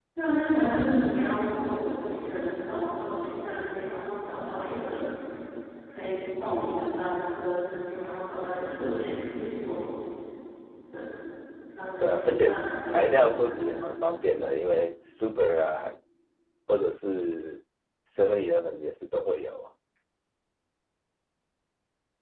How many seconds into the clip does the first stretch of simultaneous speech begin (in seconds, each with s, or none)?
12.0 s